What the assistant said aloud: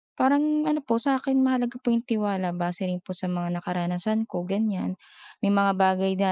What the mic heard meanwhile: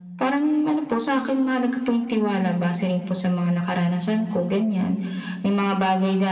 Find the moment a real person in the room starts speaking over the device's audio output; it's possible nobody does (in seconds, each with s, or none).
none